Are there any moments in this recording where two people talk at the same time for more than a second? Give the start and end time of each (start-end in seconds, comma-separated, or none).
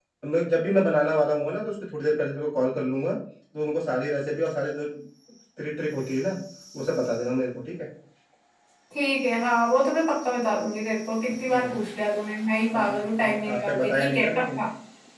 12.7-14.6